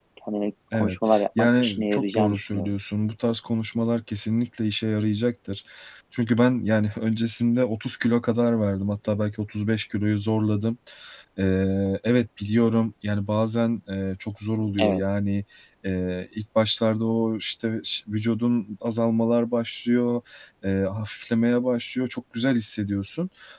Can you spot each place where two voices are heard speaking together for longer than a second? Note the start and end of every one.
0.7-2.7

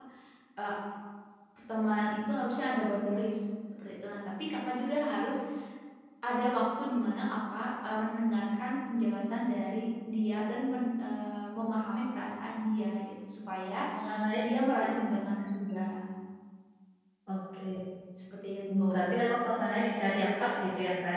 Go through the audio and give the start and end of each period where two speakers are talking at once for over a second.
none

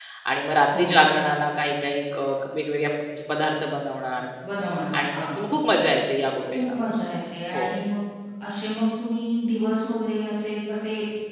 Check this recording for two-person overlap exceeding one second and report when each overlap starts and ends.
none

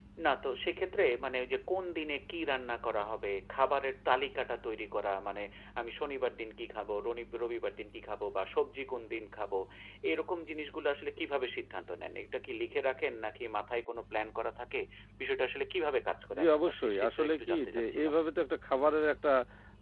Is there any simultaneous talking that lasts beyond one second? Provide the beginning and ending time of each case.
16.4-18.1

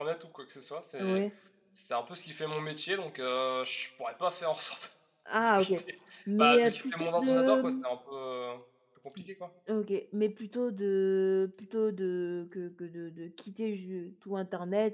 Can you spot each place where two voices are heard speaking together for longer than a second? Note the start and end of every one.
6.4-7.7

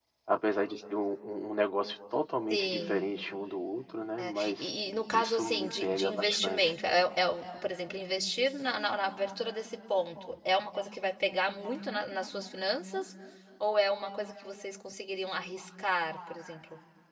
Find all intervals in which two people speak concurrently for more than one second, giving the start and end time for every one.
5.1-6.7

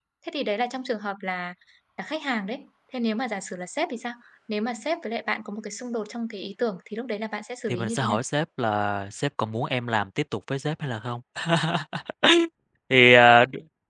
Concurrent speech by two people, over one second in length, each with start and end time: none

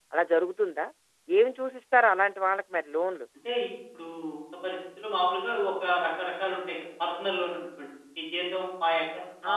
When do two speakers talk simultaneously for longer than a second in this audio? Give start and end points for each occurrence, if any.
none

